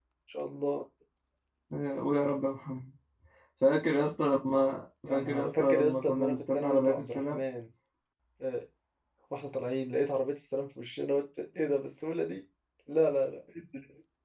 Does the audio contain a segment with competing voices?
Yes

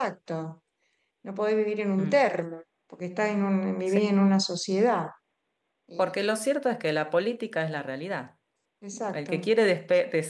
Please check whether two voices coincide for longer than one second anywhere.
No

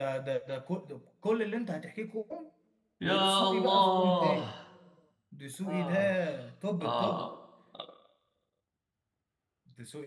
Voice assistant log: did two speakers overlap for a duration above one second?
Yes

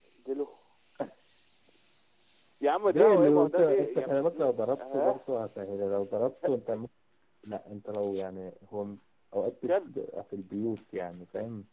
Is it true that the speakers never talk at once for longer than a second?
No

